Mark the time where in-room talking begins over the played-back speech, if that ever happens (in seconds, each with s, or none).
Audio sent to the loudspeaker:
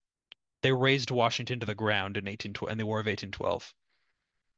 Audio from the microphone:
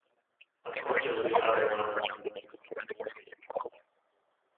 0.6 s